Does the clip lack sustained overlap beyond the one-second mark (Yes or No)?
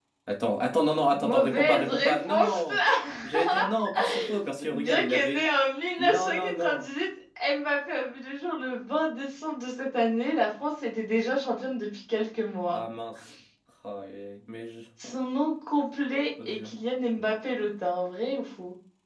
No